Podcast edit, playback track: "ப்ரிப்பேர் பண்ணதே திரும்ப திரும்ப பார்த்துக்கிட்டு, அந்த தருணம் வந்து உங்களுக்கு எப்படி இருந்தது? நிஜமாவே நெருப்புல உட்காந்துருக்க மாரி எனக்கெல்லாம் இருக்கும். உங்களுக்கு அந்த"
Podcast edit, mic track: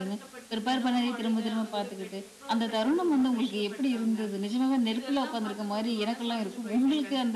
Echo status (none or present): present